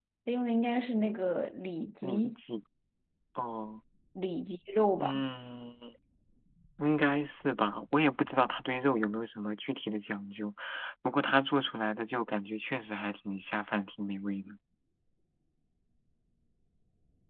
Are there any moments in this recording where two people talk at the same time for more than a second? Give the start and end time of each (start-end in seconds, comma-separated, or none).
none